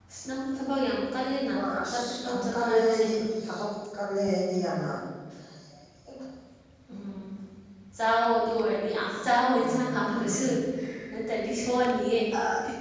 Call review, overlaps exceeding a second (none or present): present